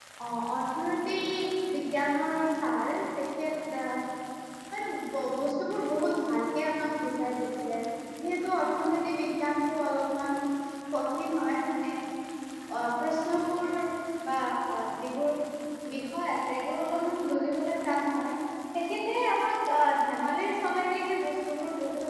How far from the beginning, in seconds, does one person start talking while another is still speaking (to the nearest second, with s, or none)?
none